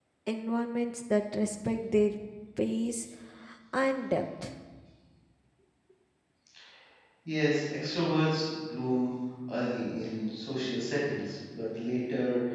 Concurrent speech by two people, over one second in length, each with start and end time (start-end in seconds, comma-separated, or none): none